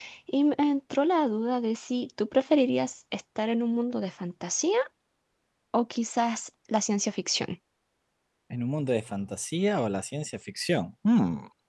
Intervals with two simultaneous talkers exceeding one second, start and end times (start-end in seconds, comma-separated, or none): none